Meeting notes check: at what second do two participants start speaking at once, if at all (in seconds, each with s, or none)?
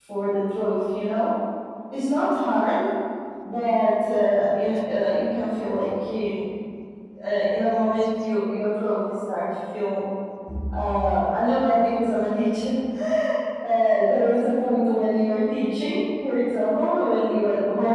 none